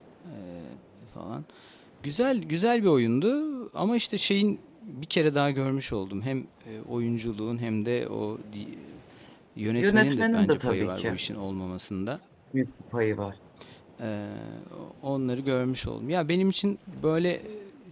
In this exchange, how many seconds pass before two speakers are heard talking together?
9.8 s

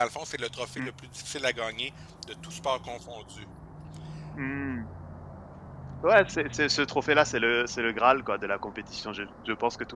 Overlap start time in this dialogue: none

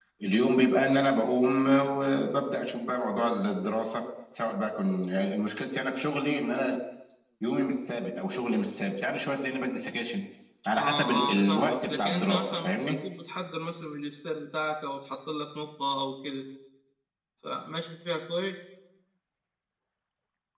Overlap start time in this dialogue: 10.8 s

